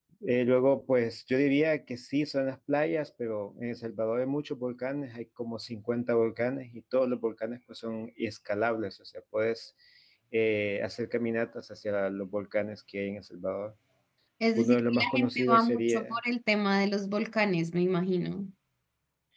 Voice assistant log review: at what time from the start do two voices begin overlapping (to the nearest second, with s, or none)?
15 s